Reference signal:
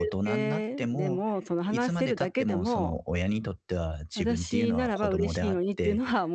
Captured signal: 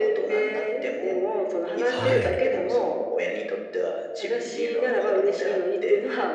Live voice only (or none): はい。